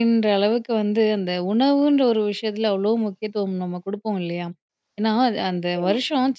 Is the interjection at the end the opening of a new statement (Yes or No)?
No